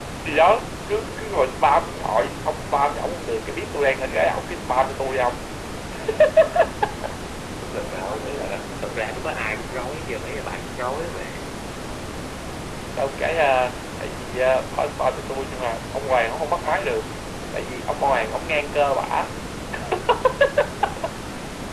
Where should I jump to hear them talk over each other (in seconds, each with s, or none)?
none